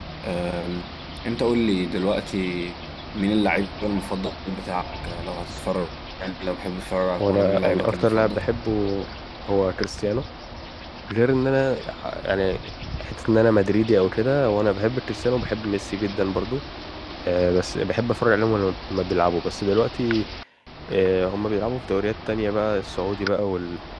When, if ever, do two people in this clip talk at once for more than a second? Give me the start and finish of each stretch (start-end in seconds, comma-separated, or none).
7.2-8.4